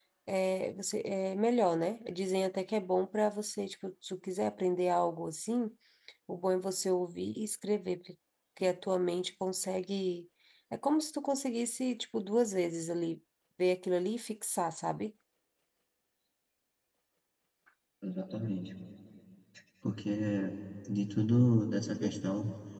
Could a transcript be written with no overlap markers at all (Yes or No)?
Yes